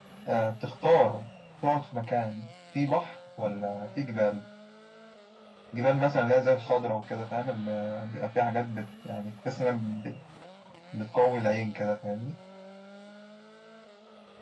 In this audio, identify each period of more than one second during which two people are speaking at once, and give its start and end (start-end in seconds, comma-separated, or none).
none